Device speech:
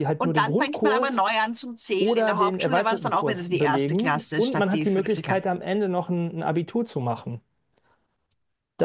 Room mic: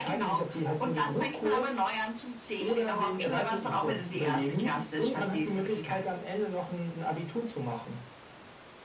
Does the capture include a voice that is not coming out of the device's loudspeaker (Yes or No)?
No